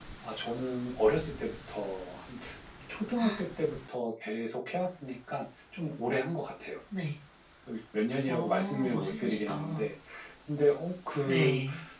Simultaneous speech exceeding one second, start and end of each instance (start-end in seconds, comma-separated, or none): 8.3-9.9